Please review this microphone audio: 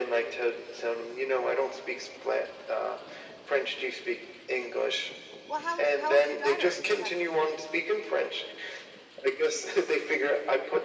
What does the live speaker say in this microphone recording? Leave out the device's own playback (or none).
Well, how old's how old's your daughter? Sorry for interrupting.